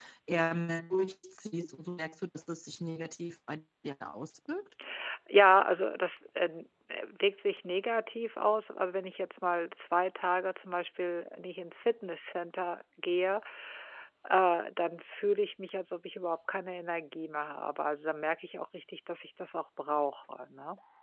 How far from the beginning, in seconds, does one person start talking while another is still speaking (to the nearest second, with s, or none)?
none